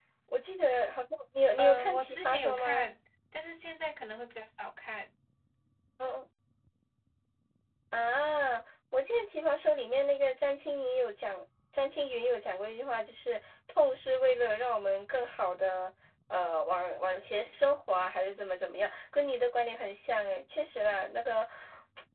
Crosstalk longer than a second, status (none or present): present